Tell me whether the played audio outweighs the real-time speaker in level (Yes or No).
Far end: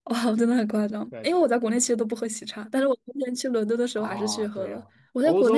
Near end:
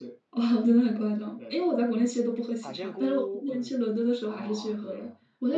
Yes